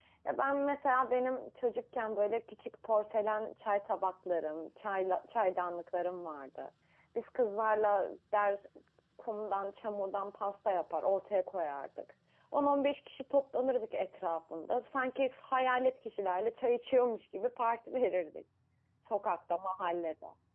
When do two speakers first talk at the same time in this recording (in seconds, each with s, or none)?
none